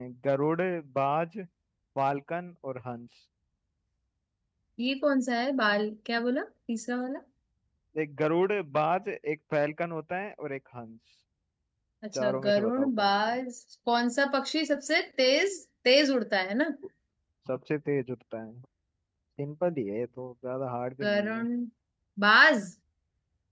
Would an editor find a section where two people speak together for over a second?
Yes, from 12.2 s

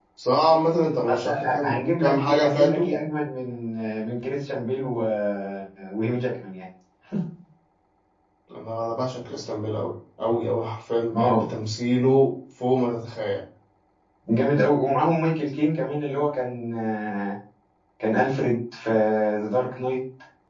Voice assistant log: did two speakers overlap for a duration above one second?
Yes, from 1.1 s

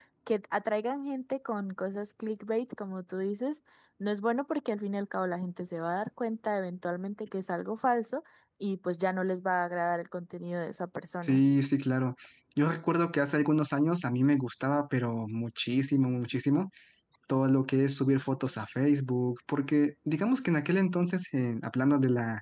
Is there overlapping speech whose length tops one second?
No

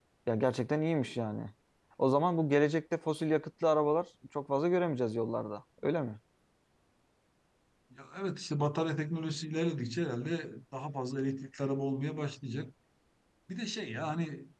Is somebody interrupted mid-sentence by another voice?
No

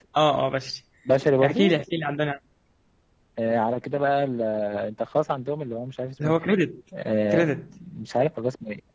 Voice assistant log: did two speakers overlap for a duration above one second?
No

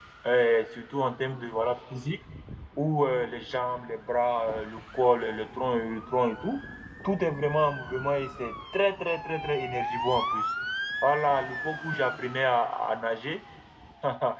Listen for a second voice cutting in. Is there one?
No

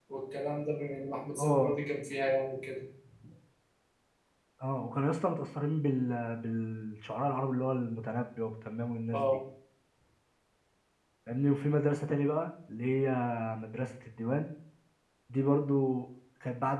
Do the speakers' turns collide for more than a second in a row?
No

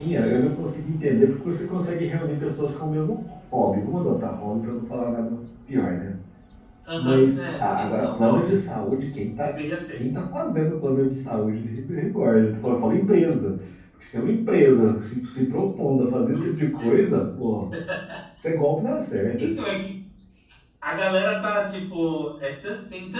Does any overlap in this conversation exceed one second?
Yes, from 7.0 s

